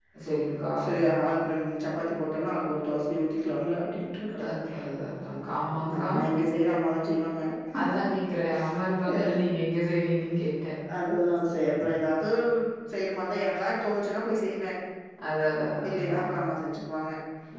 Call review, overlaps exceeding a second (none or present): none